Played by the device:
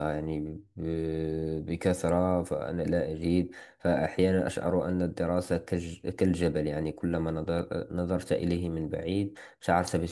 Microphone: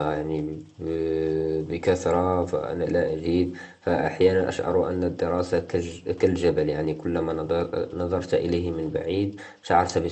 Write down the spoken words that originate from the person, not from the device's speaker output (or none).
none